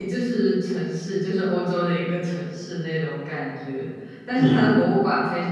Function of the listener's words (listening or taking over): listening